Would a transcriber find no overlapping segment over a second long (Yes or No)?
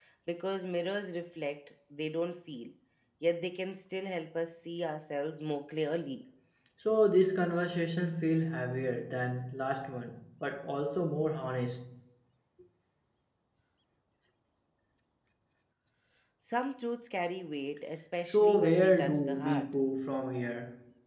No